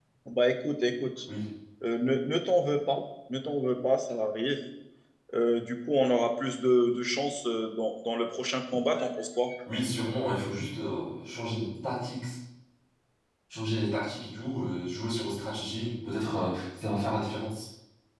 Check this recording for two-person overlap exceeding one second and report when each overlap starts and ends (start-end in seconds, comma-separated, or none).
none